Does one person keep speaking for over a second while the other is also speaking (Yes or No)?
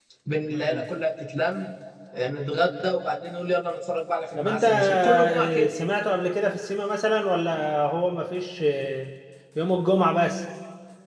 Yes